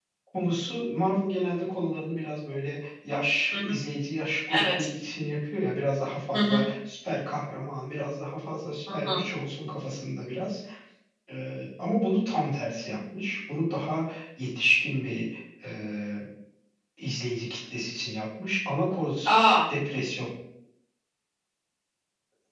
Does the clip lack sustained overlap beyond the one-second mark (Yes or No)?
Yes